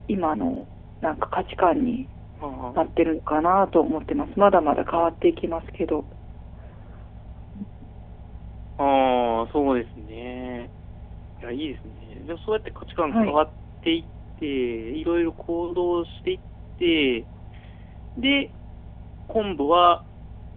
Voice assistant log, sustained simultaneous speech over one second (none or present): none